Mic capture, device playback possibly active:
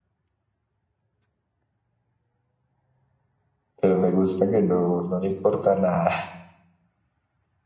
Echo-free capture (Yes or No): Yes